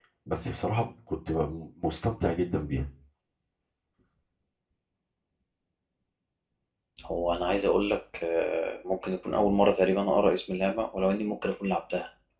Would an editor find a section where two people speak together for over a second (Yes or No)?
No